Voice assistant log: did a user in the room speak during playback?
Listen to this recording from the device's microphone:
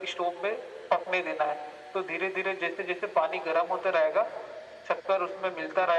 No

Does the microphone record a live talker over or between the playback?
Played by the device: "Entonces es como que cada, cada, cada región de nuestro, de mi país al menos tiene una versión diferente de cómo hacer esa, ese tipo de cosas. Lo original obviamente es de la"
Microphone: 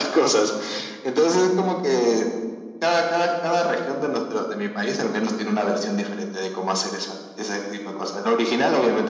No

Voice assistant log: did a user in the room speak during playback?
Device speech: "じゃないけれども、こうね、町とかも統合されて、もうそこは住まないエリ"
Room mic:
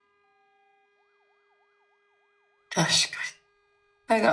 Yes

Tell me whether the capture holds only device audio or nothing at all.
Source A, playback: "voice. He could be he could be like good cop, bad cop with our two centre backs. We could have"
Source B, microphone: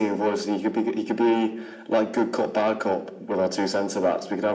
Yes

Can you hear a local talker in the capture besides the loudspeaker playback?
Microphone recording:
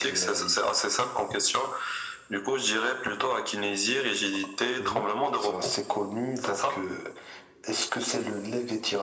Yes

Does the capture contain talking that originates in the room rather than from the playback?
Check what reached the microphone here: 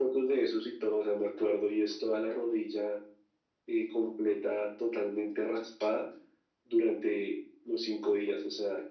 No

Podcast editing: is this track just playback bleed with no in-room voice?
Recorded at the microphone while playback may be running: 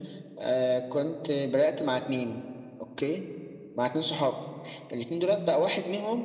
Yes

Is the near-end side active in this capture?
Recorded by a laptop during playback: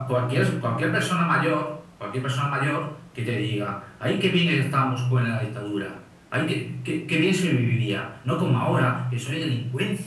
No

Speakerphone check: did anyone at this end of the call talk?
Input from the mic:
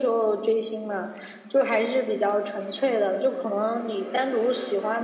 No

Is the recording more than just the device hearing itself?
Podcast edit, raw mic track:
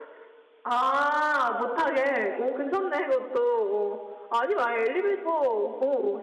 No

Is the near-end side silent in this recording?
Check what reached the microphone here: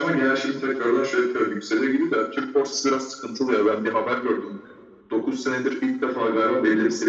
Yes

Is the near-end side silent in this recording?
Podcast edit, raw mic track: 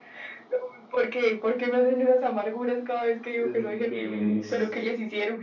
No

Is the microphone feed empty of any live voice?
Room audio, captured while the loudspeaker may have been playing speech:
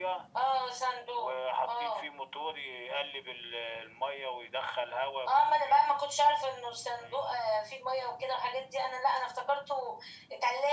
Yes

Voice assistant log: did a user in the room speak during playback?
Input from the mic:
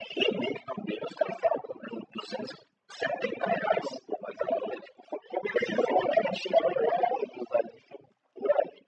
No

